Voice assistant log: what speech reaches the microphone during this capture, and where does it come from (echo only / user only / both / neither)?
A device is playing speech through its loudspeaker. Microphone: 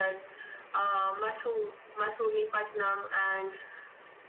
echo only